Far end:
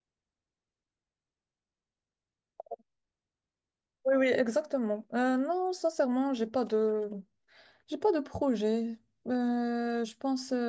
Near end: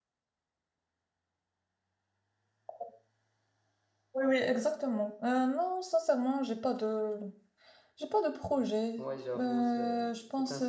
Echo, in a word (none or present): present